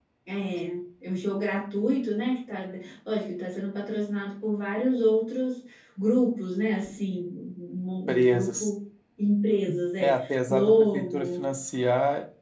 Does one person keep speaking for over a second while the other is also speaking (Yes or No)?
Yes